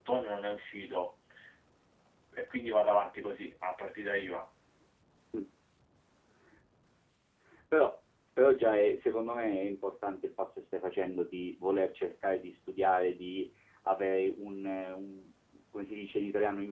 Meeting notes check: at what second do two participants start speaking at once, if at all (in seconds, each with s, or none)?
none